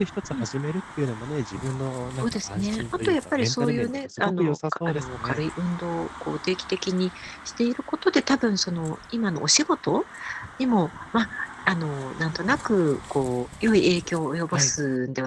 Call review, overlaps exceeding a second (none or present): present